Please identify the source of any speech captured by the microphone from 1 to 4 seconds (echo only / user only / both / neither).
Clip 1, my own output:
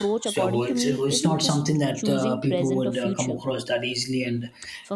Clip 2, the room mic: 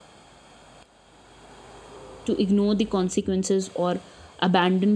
user only